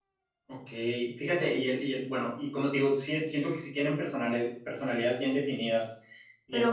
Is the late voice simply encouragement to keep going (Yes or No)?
No